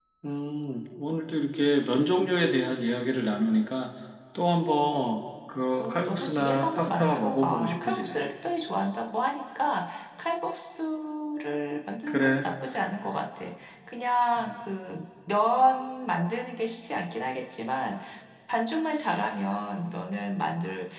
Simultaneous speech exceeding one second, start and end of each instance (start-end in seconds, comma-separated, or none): 5.8-8.3